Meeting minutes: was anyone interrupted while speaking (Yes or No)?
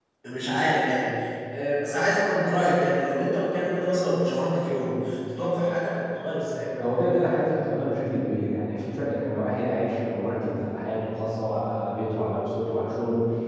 No